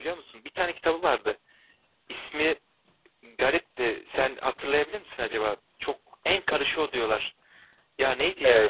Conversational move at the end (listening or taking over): taking over